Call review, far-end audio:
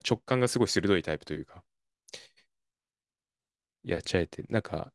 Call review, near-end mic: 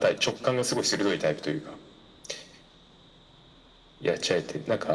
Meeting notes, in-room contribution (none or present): none